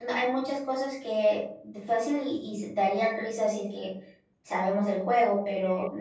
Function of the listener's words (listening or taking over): listening